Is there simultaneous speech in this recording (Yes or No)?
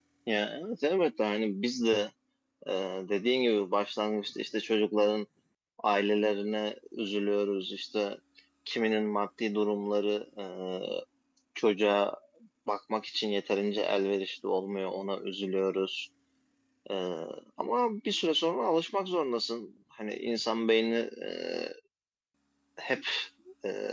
No